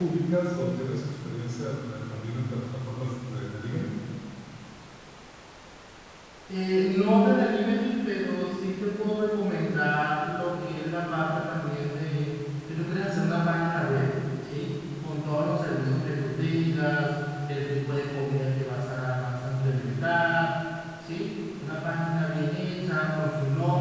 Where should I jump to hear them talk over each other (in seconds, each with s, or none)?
none